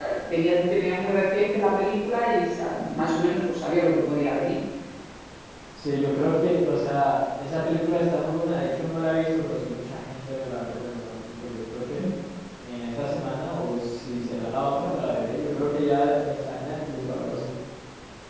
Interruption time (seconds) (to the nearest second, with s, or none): none